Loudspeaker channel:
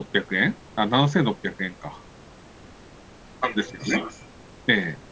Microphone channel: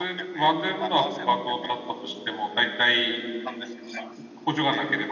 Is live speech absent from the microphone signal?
No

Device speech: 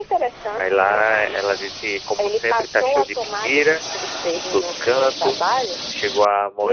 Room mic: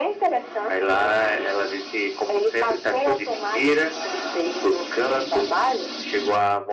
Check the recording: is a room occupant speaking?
No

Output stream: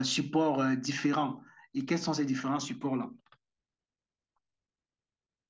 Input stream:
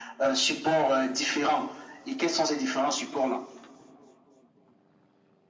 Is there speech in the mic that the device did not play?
No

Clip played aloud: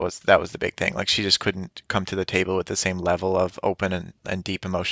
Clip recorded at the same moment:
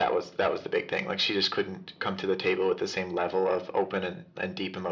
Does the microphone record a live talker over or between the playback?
No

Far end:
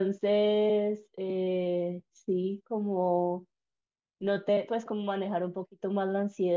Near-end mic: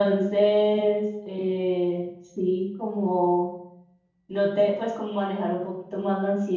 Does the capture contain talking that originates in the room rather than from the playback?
No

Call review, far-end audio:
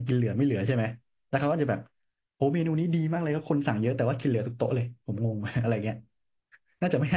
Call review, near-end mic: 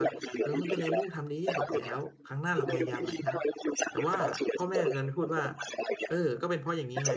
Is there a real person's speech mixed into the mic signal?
Yes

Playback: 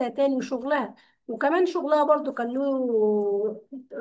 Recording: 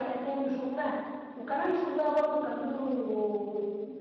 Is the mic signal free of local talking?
Yes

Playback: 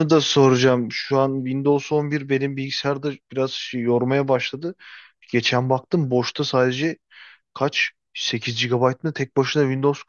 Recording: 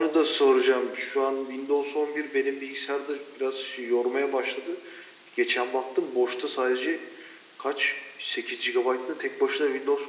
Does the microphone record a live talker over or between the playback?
No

